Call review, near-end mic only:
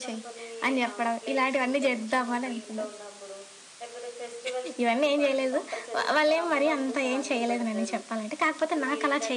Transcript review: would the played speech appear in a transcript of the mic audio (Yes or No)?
Yes